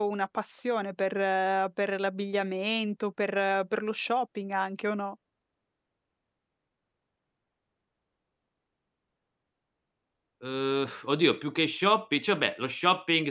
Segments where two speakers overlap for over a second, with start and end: none

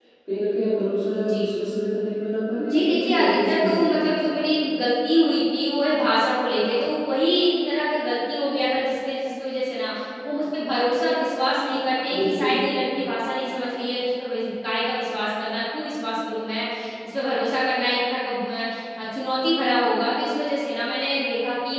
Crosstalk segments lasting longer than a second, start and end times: 2.7-4.0

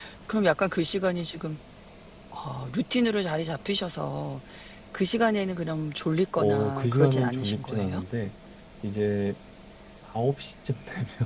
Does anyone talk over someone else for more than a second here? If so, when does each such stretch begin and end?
6.4-8.0

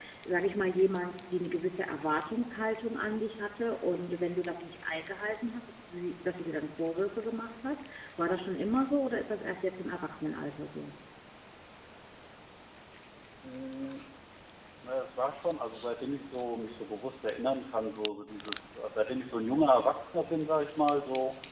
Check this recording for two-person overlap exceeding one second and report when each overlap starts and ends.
none

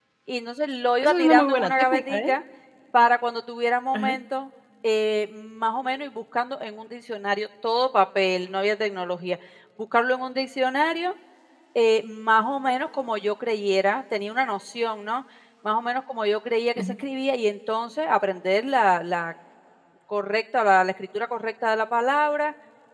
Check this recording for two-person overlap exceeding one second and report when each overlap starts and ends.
1.0-2.3

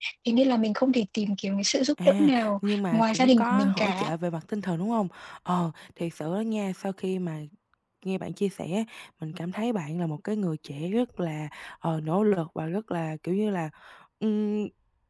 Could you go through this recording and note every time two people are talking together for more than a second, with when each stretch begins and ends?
2.0-4.1

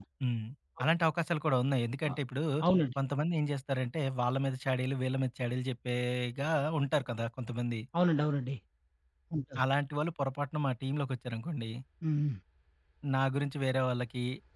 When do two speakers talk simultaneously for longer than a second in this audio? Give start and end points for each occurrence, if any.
none

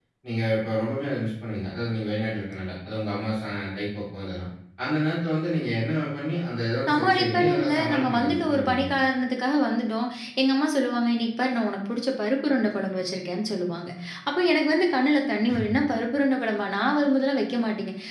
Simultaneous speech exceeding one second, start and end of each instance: 6.9-8.8

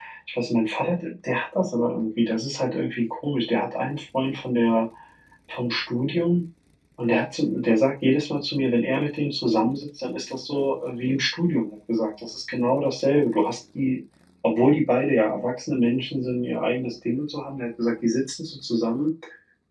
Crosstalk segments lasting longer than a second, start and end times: none

